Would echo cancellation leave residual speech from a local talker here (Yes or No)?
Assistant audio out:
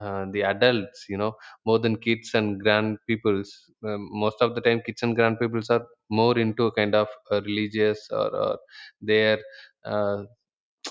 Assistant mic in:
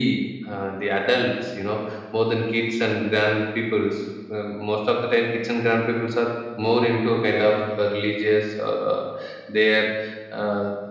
No